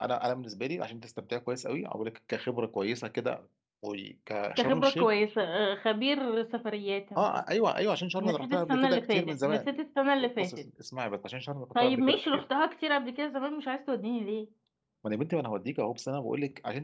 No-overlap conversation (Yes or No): No